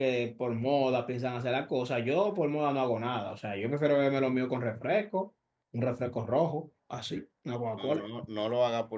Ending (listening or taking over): taking over